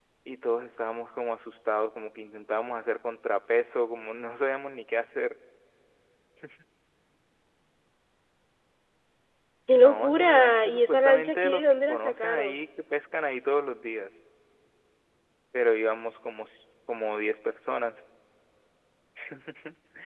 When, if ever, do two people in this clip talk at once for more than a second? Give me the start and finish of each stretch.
9.7-12.6

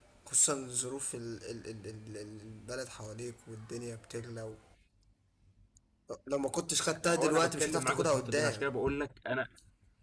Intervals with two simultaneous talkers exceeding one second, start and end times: 7.0-8.7

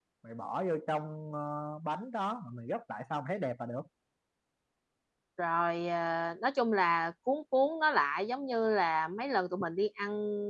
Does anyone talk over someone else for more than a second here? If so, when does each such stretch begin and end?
none

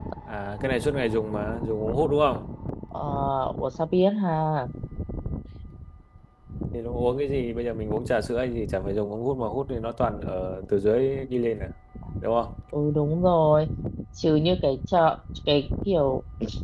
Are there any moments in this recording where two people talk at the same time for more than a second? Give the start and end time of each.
none

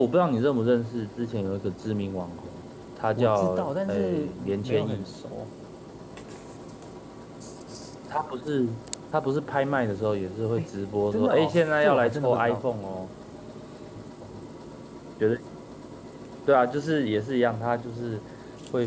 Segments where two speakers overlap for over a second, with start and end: 3.1-5.1, 11.1-12.8

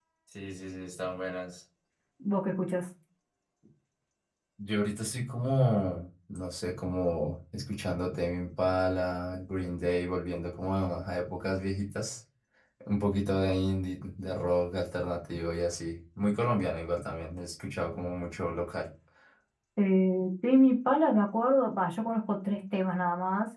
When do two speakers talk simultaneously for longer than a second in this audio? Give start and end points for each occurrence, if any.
none

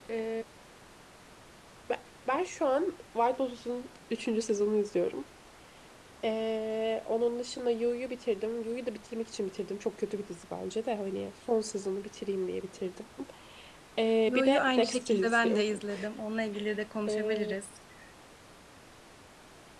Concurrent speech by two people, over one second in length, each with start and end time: 14.3-15.8

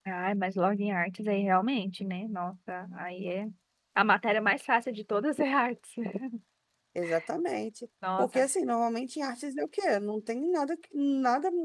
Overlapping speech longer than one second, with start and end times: none

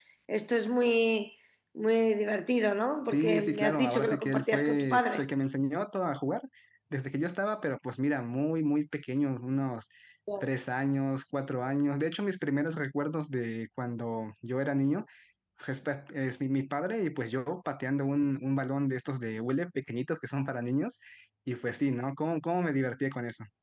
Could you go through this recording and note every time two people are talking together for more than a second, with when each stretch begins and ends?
3.1-5.2

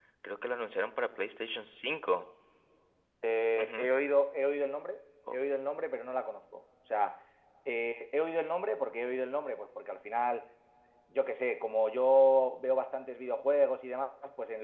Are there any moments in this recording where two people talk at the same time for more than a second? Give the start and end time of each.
none

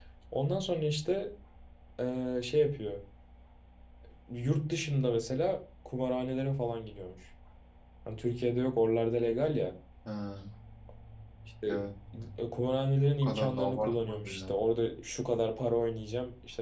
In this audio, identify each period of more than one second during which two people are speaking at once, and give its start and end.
13.2-14.5

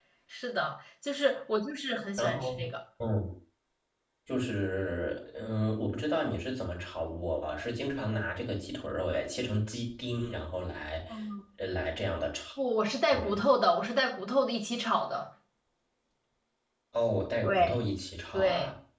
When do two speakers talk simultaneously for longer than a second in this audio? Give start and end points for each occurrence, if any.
none

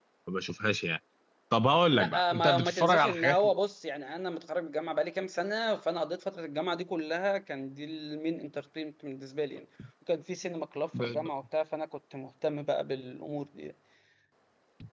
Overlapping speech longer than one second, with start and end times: 2.0-3.4

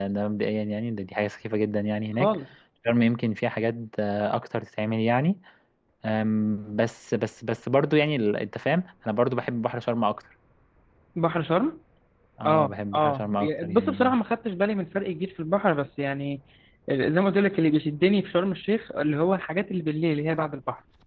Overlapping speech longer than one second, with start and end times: 12.4-14.2

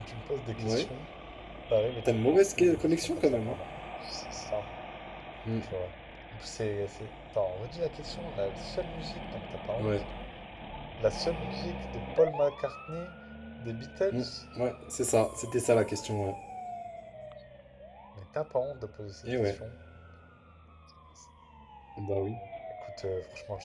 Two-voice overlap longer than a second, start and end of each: 2.0-3.6

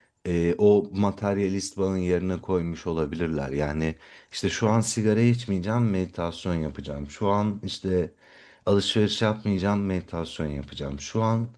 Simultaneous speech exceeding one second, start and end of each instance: none

